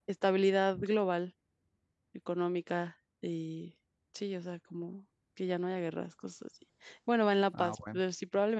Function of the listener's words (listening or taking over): listening